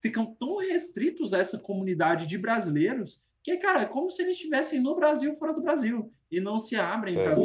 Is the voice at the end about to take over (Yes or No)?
No